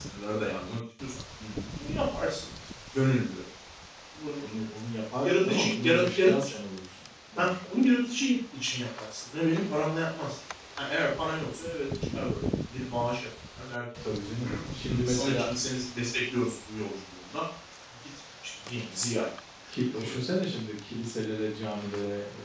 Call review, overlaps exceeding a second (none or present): present